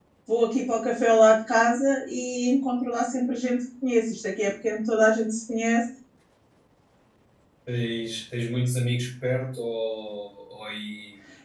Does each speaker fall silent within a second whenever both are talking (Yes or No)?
Yes